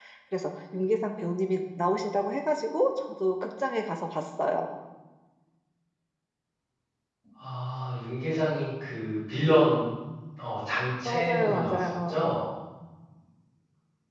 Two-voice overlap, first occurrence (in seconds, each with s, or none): 11.0 s